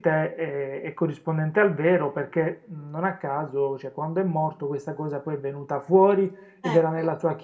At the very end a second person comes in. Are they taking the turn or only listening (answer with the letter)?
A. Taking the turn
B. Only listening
B